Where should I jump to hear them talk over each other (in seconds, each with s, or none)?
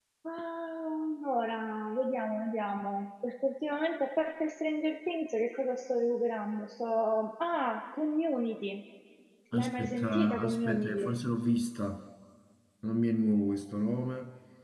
9.5 s